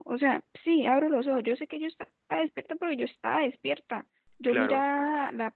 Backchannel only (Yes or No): Yes